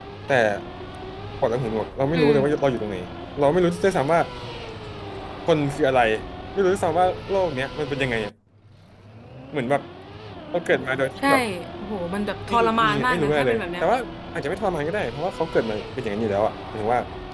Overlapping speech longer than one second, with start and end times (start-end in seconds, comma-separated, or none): 12.5-13.8